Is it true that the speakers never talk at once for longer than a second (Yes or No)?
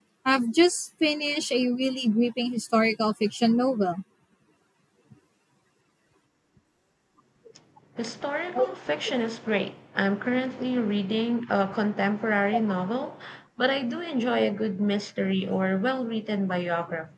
Yes